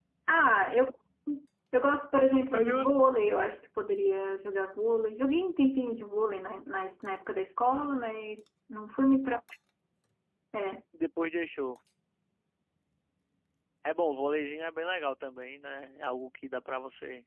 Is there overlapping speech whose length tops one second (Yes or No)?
No